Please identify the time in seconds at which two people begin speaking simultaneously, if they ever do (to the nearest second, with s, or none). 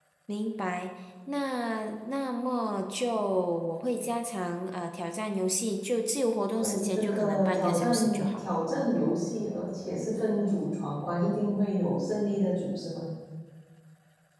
7 s